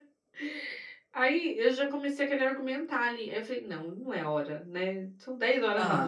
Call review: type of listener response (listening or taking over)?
listening